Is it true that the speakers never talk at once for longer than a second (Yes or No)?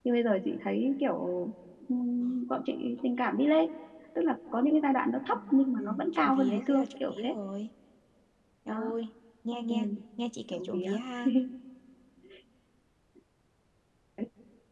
No